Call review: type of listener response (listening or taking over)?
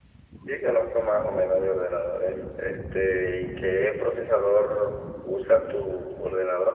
taking over